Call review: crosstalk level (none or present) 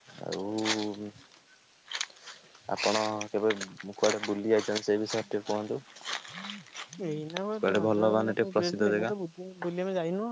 present